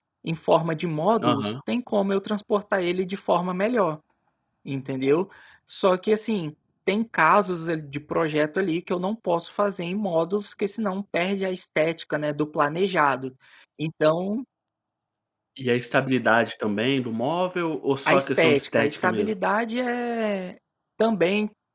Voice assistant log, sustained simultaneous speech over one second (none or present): present